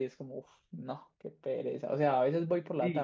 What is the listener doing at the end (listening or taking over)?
taking over